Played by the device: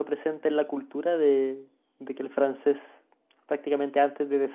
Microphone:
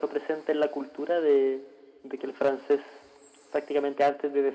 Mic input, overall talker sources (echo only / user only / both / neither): echo only